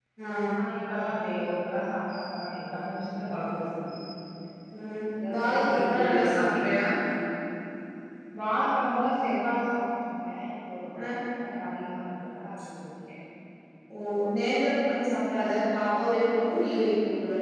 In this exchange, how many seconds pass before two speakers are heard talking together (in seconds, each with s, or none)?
5.3 s